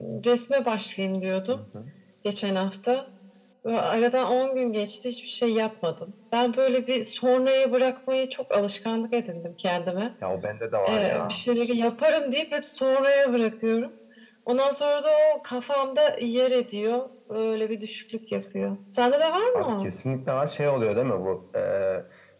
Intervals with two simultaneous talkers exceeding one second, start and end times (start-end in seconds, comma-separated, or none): none